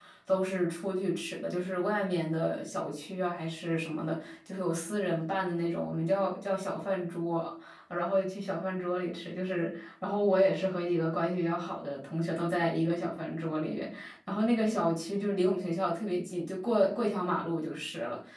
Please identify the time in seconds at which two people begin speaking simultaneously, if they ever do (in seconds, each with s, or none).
none